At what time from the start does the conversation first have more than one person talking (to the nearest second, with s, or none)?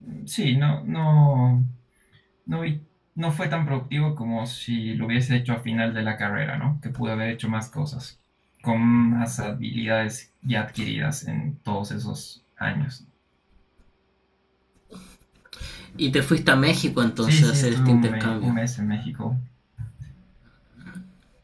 17 s